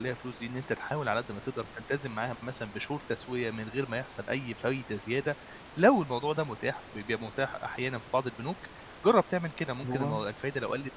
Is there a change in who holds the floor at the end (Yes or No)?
No